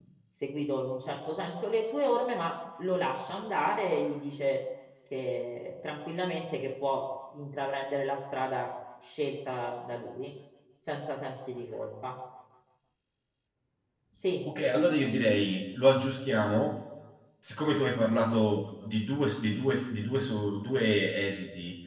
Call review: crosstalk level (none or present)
none